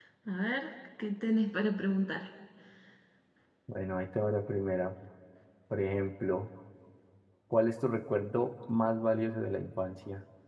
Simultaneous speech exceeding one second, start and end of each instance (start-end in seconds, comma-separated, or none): none